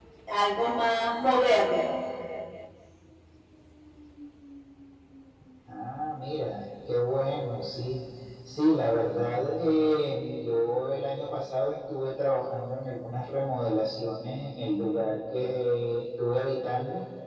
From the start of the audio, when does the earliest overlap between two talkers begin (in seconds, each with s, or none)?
none